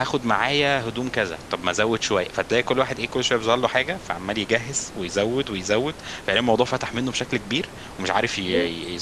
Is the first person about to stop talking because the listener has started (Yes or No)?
No